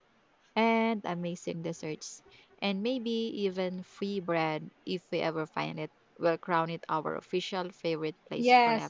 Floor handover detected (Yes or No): Yes